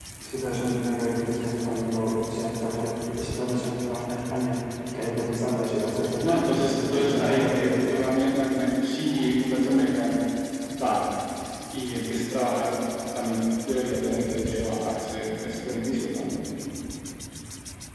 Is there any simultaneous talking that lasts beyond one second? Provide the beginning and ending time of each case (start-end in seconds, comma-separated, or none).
6.2-8.1